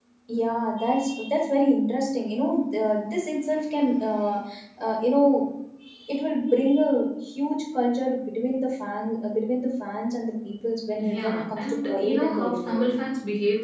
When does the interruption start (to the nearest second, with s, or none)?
11 s